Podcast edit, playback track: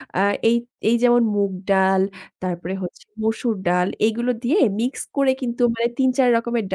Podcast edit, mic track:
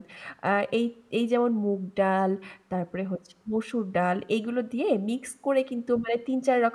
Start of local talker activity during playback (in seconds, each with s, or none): none